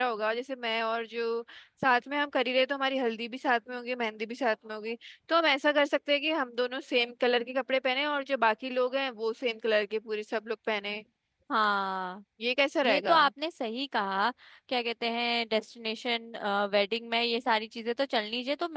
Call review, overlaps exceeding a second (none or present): none